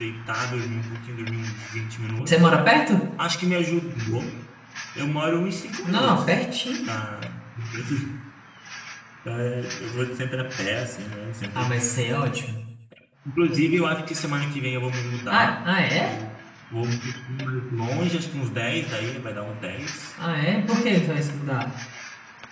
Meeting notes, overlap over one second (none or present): none